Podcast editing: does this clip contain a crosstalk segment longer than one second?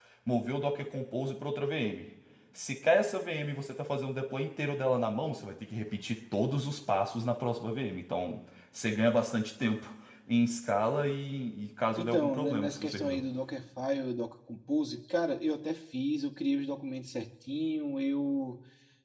Yes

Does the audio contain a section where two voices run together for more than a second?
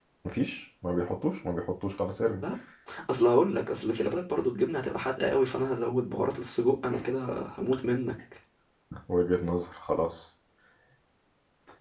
No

